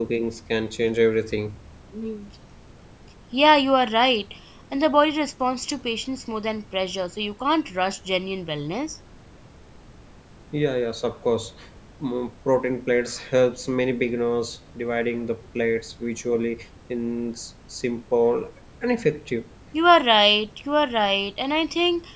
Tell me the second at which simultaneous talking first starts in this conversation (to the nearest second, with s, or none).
none